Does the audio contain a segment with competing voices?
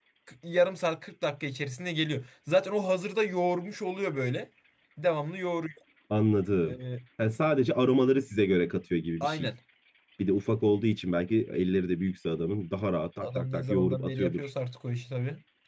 Yes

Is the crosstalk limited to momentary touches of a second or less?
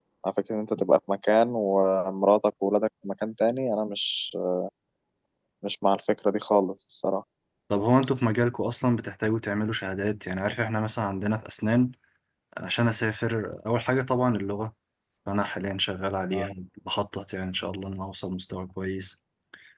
Yes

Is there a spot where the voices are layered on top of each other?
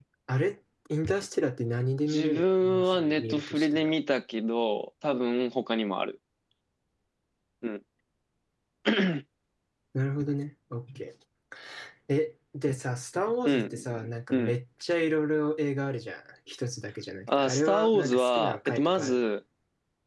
Yes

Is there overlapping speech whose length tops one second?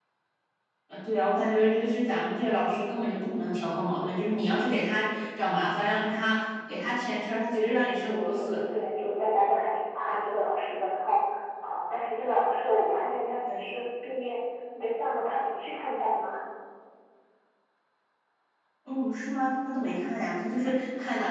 No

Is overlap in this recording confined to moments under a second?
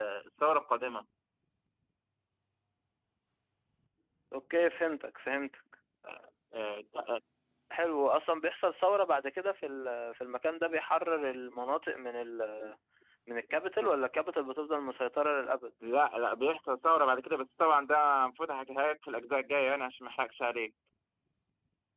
Yes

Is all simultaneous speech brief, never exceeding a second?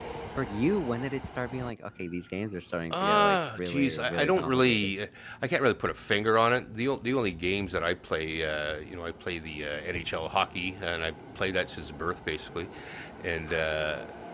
No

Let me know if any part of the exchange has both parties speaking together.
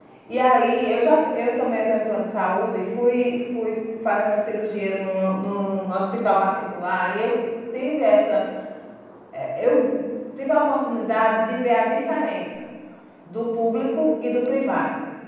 No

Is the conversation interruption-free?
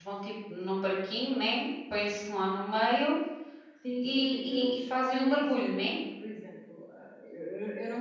No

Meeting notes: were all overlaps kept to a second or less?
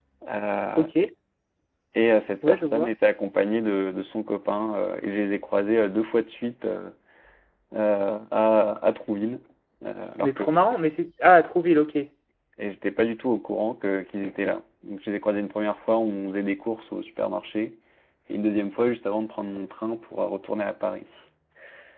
Yes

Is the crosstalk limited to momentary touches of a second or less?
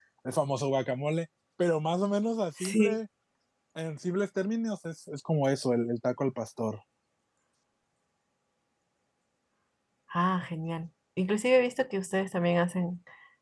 Yes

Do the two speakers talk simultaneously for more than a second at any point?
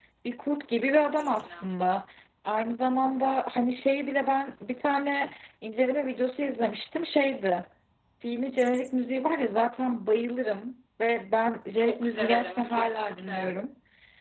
Yes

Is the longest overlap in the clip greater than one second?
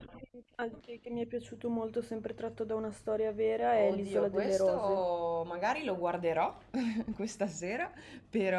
Yes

